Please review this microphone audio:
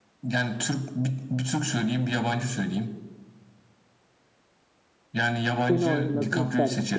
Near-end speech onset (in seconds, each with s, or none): 5.5 s